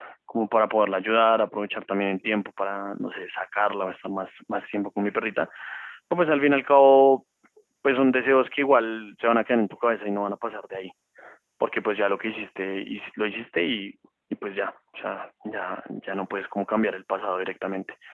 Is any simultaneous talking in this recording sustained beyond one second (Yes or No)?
No